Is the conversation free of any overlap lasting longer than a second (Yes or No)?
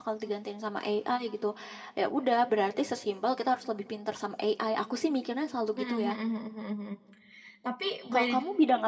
Yes